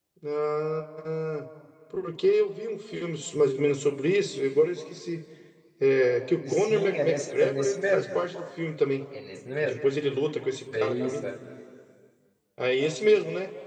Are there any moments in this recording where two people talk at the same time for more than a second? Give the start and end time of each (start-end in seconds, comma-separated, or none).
6.4-8.1